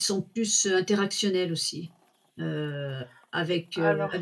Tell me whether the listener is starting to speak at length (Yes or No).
No